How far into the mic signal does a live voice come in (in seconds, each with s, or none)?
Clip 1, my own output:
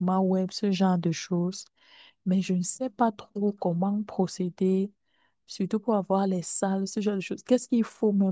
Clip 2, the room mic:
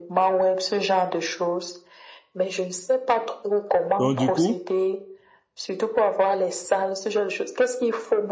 4.0 s